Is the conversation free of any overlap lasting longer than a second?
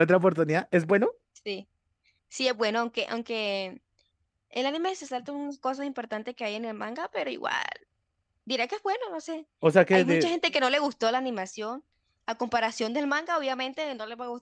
Yes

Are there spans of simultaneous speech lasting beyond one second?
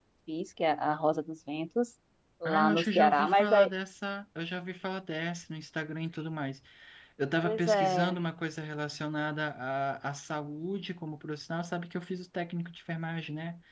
Yes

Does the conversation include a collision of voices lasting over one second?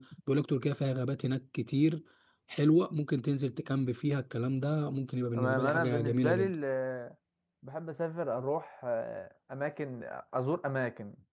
Yes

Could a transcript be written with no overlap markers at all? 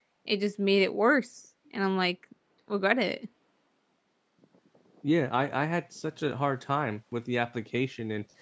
Yes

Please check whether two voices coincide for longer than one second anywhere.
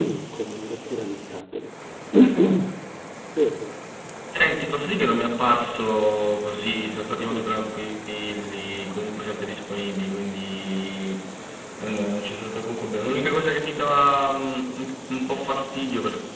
No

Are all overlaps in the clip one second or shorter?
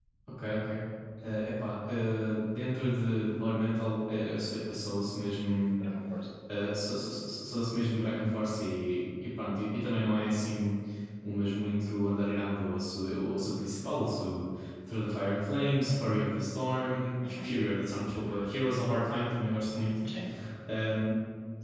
Yes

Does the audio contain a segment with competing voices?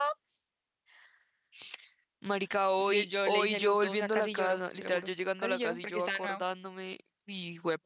Yes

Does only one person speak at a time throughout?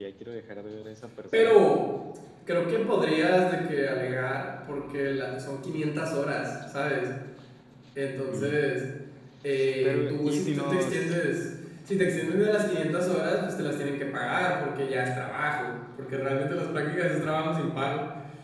No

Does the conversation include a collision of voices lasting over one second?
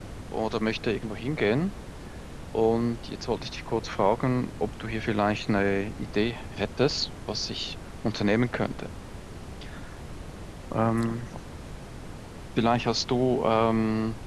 No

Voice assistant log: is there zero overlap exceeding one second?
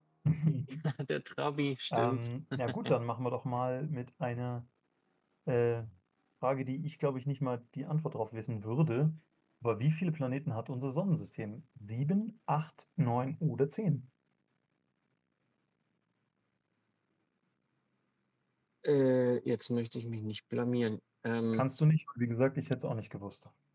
Yes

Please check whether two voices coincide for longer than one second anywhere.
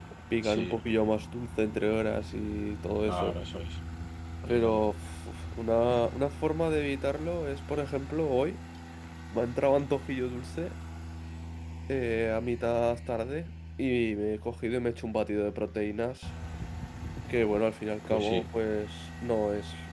No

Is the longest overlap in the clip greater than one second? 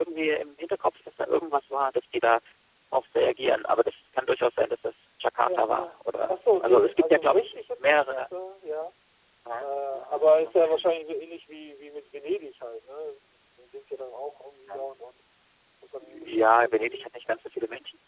Yes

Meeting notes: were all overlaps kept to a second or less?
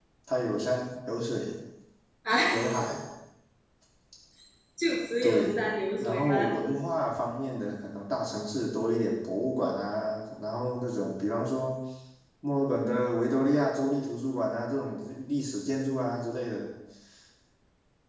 Yes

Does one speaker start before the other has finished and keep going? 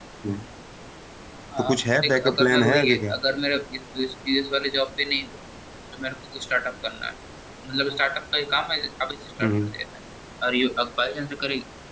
Yes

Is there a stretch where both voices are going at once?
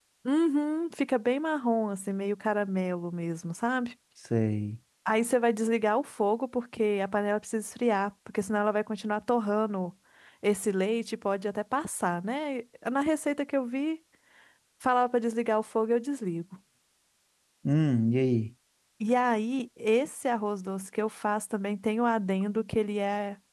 No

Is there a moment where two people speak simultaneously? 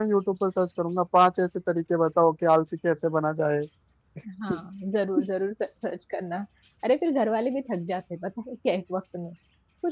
No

